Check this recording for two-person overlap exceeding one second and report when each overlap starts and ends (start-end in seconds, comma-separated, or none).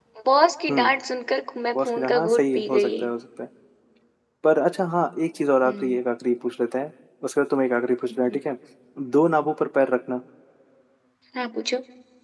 1.7-3.0